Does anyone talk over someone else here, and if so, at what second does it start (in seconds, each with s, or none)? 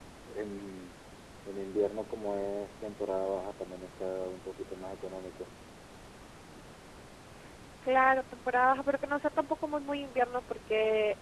none